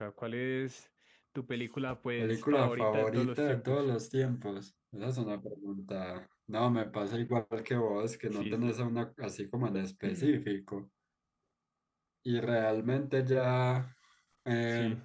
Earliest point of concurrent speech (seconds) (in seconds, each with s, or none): 2.2 s